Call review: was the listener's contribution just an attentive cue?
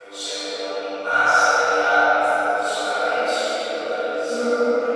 Yes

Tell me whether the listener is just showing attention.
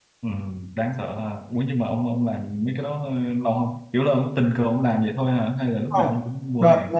No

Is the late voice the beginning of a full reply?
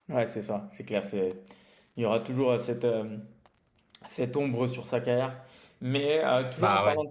No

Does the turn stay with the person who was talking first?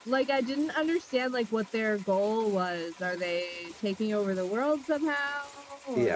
No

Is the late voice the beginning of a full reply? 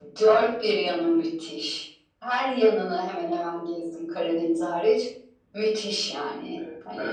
Yes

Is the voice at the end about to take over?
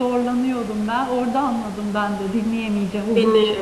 Yes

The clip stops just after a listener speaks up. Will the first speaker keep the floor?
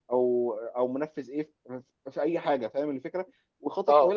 Yes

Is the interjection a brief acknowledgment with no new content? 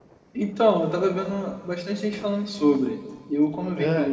Yes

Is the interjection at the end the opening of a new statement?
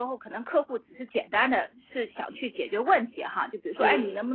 No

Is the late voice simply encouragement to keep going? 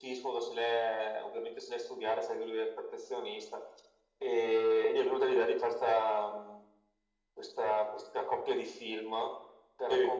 Yes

